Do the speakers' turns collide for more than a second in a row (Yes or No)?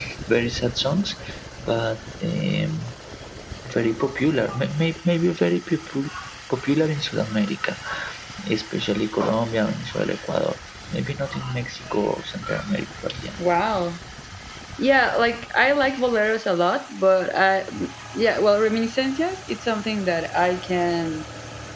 No